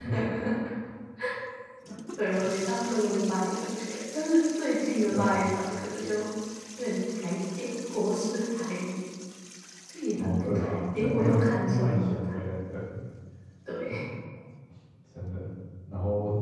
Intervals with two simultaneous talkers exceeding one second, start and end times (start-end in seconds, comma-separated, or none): 10.1-12.3